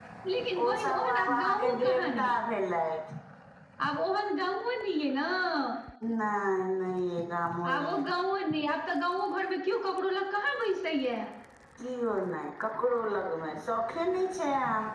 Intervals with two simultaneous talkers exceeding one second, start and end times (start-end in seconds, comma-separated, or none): 0.6-2.4